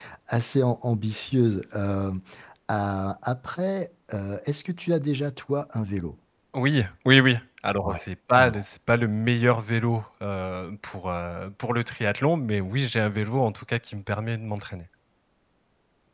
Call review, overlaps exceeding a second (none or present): none